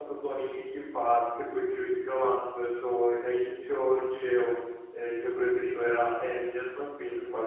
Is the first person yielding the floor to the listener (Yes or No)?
Yes